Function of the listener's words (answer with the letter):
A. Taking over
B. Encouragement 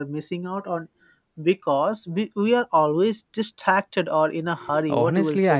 A